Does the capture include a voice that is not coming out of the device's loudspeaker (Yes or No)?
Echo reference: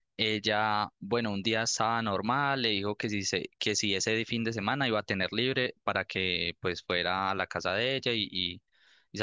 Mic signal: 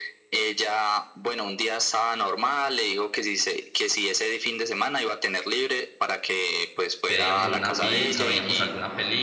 Yes